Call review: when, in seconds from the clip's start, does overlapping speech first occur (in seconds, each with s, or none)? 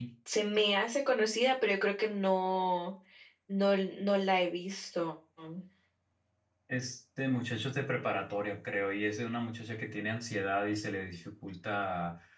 none